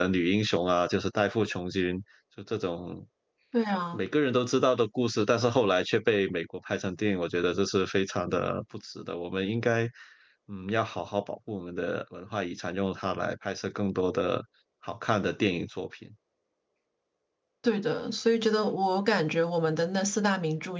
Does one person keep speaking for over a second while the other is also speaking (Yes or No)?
No